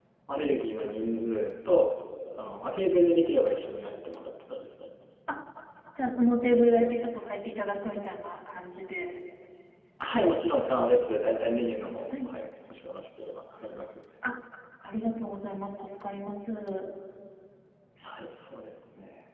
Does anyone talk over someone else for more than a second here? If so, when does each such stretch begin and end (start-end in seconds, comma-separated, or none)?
none